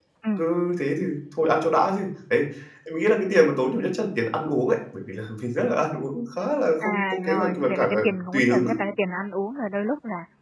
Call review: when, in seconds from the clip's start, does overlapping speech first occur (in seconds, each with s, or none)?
6.8 s